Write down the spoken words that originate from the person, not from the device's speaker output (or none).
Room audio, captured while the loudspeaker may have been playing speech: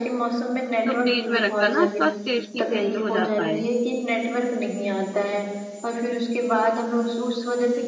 تو فریج میں رکھ کر نا اس کا ٹیسٹ ہی چینج ہو جاتا ہے